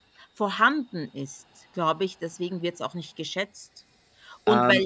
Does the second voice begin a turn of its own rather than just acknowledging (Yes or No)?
No